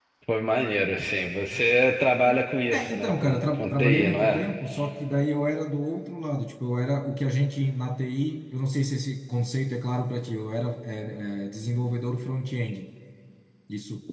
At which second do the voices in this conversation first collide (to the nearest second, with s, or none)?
3 s